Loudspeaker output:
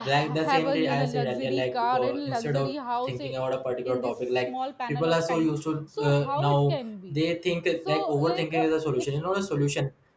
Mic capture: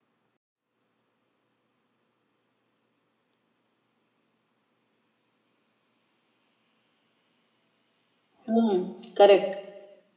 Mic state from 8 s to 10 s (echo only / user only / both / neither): user only